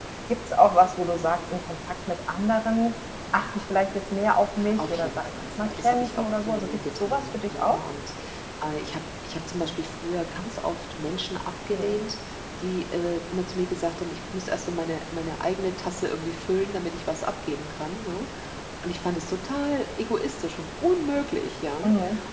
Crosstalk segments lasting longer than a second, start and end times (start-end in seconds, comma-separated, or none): 4.8-7.8